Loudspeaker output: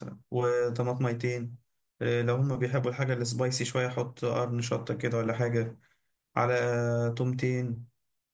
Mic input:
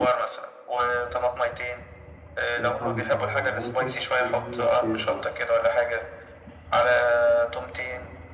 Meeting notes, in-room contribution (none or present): present